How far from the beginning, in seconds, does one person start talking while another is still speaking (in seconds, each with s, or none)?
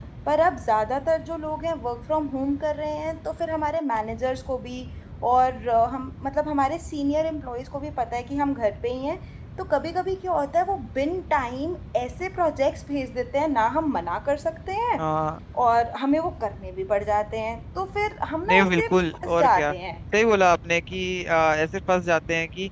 18.5 s